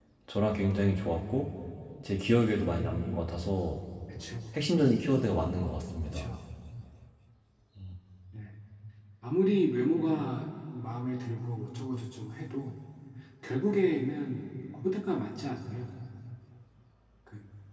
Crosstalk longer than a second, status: none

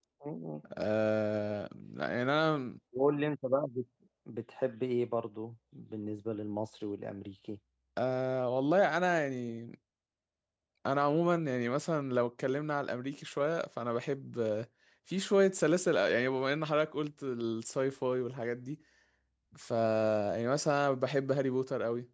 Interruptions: none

